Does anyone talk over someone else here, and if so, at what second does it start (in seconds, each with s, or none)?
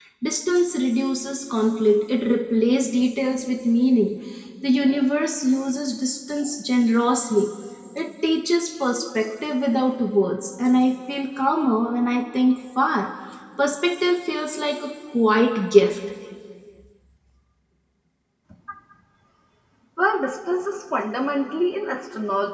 none